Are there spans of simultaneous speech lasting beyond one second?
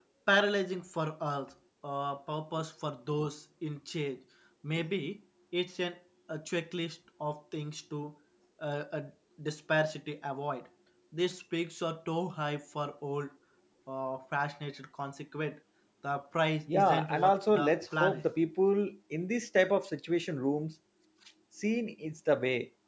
Yes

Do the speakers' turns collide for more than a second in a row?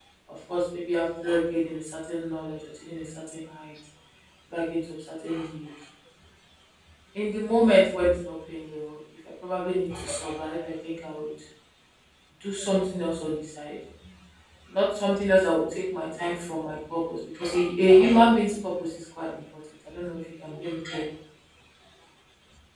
No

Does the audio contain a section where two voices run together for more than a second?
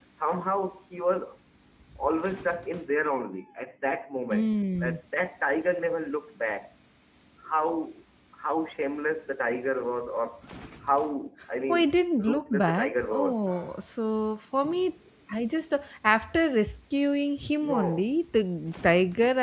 Yes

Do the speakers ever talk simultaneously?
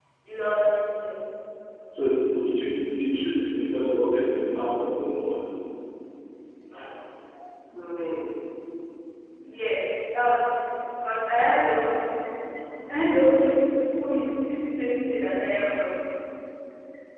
No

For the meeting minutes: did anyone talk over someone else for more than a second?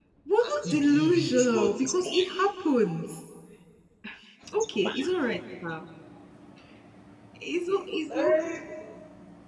Yes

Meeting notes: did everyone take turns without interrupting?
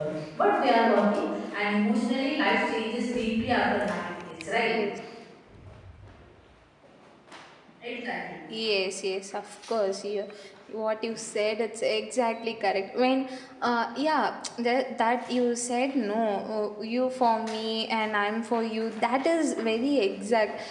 Yes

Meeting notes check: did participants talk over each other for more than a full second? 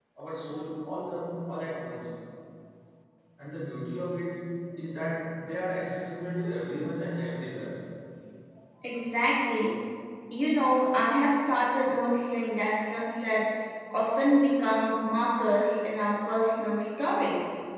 No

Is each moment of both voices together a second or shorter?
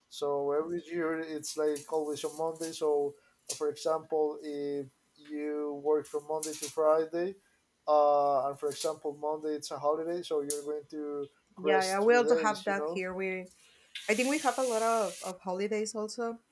No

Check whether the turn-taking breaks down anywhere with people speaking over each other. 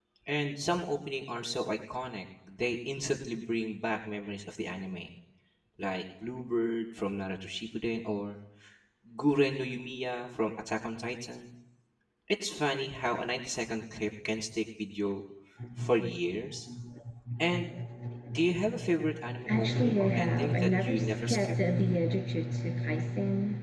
Yes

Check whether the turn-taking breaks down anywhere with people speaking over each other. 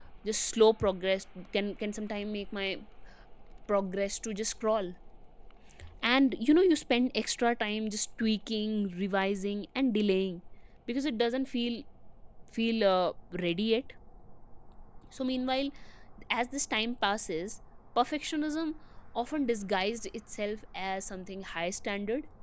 No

